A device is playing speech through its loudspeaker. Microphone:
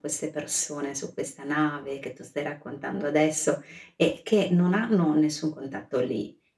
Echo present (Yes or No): No